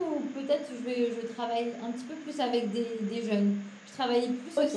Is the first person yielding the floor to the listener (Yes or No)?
No